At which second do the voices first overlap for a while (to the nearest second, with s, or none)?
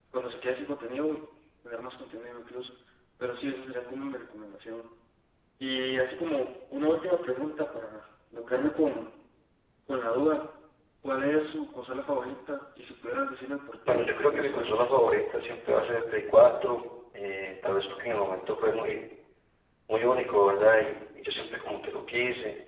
14 s